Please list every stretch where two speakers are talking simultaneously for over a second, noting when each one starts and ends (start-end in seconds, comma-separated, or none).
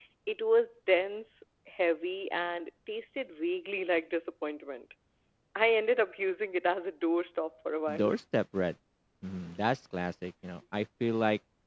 none